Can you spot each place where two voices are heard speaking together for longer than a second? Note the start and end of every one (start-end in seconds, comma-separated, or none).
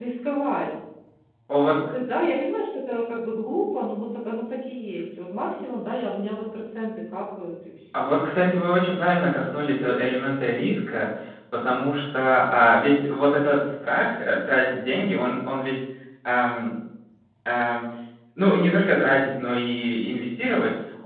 none